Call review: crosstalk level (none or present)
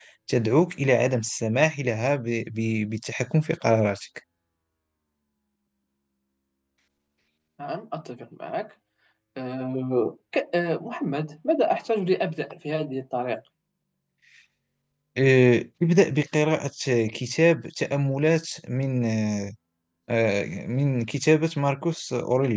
none